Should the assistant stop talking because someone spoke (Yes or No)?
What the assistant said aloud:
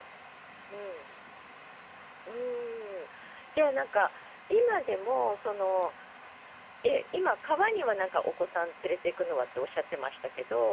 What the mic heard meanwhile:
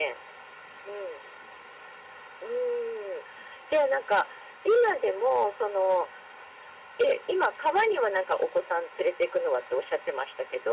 No